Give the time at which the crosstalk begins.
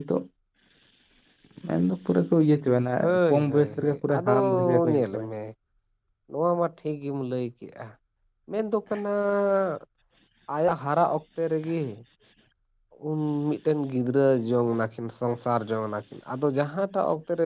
3.0 s

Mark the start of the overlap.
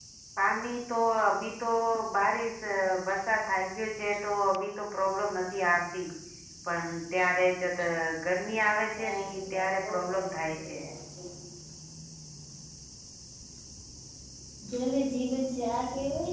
9.0 s

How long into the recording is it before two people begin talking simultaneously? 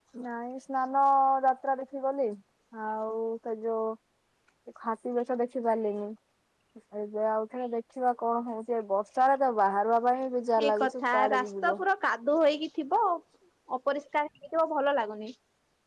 10.6 s

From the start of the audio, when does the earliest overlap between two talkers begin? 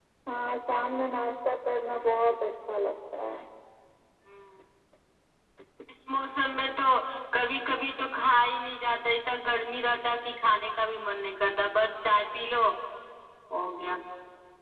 none

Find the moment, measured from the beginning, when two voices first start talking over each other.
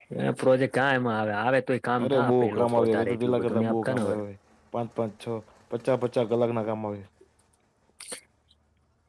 2.0 s

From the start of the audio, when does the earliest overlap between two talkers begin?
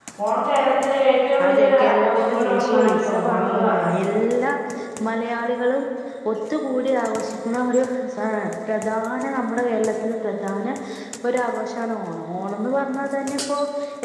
1.4 s

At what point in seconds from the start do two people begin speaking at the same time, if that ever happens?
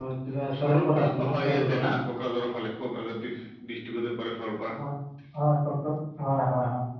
0.6 s

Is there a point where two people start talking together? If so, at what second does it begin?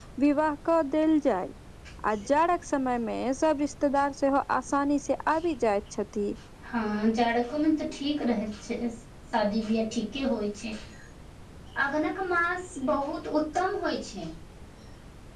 none

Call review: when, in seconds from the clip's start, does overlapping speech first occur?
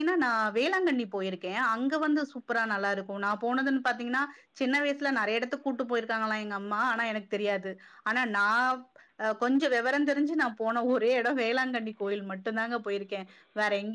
none

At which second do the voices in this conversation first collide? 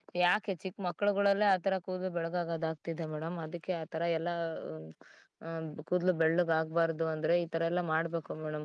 none

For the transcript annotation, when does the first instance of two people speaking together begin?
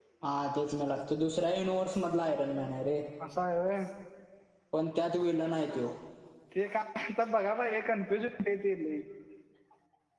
none

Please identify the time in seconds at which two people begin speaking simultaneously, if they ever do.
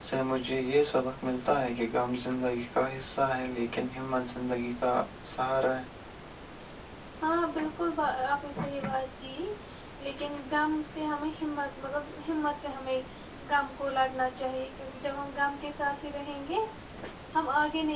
none

